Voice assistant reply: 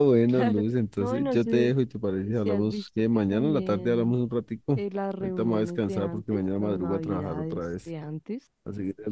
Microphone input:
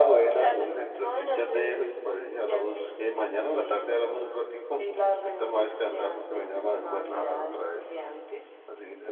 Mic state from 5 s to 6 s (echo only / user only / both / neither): echo only